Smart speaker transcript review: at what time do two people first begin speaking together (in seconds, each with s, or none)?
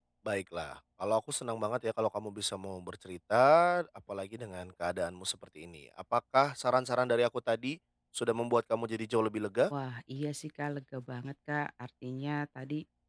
none